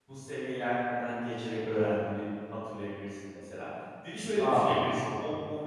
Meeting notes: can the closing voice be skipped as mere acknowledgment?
Yes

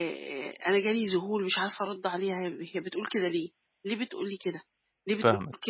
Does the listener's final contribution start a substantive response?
No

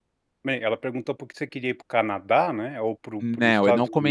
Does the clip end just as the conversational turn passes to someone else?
Yes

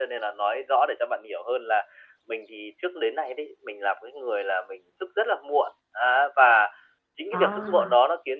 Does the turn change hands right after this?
No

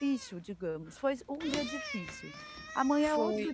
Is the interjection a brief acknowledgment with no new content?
Yes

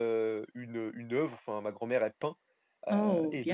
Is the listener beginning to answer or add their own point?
No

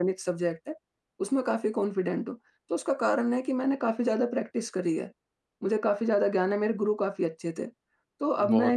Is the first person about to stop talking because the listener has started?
No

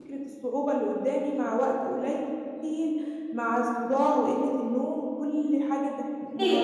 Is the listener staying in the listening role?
No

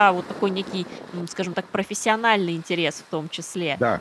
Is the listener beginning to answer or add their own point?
No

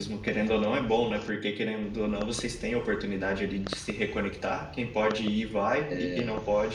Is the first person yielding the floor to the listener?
No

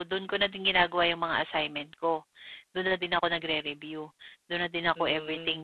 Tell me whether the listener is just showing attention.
No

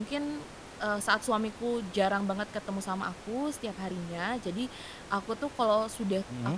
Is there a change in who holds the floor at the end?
No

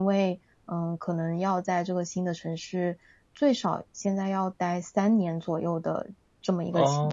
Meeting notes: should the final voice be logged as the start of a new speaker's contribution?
Yes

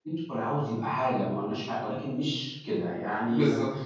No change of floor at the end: No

